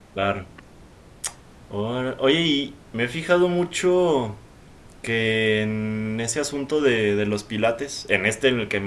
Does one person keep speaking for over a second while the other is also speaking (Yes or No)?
No